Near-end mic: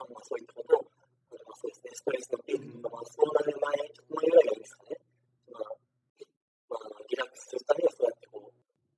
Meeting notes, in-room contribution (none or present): present